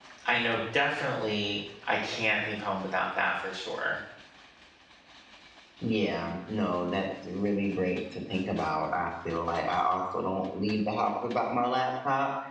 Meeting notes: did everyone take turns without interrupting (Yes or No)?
Yes